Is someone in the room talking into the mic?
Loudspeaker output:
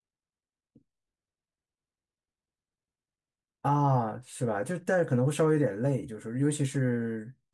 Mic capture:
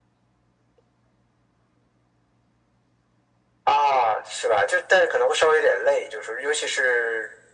No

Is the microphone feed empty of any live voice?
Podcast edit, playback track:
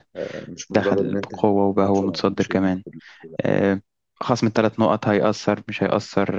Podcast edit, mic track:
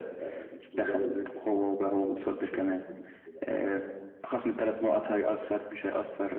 Yes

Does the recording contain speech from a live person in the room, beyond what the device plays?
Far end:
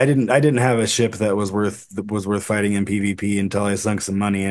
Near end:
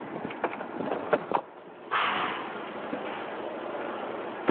No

